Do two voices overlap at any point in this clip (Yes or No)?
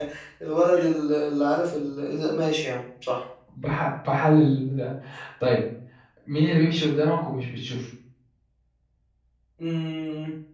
No